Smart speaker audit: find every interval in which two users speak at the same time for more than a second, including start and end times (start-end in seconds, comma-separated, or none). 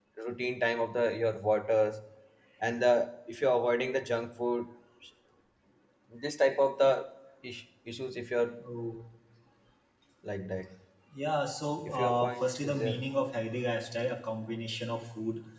11.8-13.1